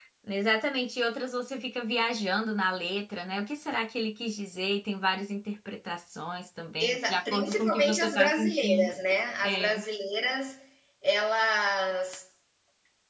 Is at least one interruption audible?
Yes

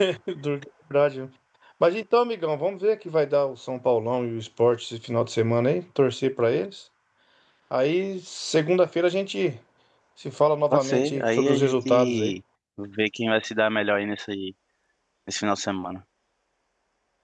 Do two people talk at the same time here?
Yes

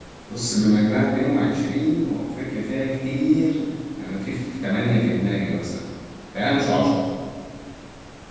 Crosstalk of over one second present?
No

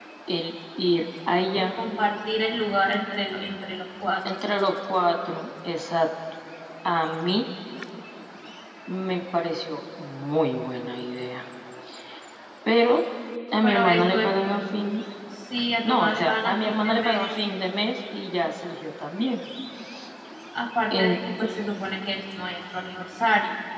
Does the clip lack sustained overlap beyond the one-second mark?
No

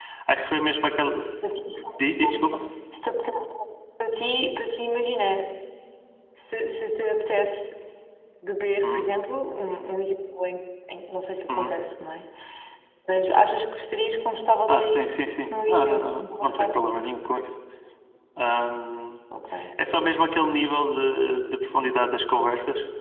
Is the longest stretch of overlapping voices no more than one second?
No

